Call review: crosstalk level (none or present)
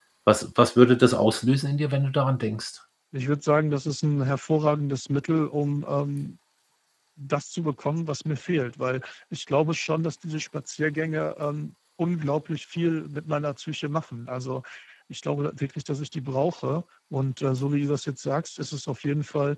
none